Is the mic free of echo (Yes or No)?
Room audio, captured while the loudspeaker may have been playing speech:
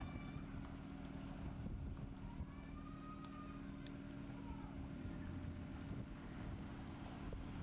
Yes